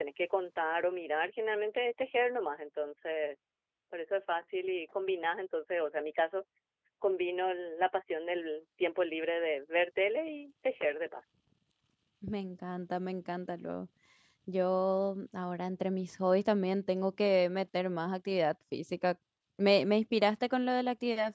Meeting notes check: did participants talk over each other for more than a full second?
No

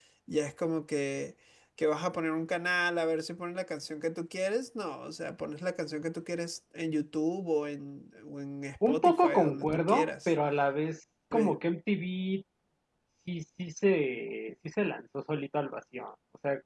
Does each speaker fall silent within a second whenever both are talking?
No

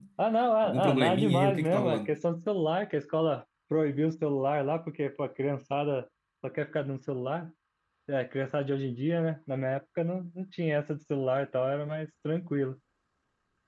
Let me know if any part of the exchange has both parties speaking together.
Yes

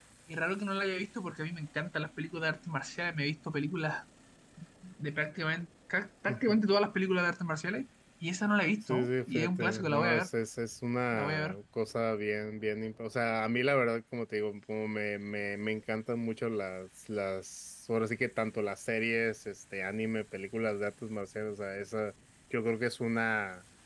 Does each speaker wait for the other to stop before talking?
No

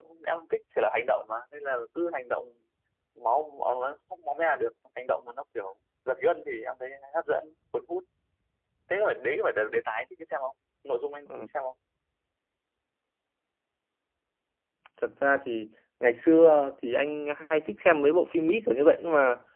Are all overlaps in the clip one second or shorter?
Yes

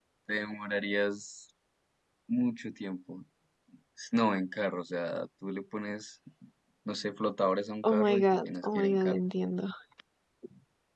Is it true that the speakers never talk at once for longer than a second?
No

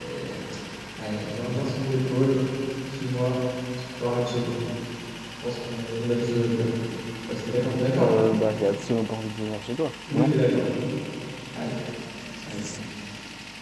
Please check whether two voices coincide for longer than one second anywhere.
No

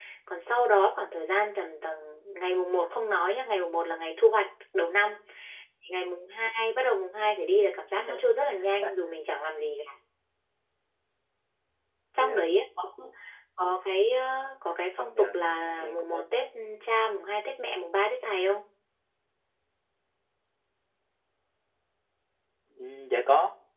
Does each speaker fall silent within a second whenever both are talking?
No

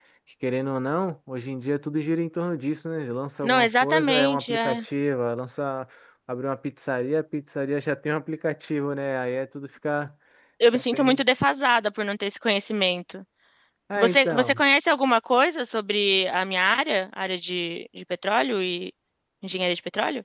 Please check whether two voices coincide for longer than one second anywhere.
Yes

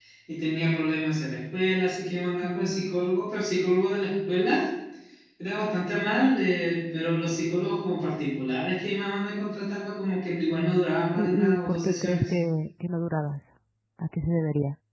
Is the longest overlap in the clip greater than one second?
Yes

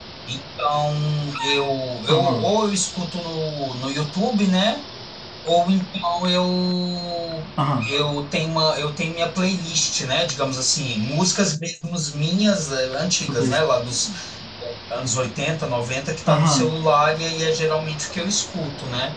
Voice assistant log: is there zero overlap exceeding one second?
Yes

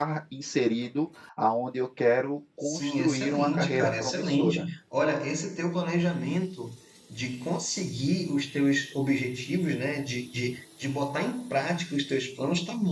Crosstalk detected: Yes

